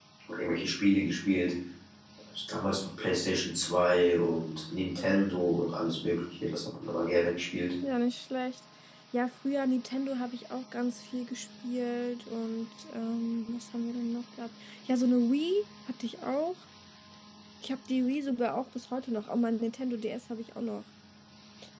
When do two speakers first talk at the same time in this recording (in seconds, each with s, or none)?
none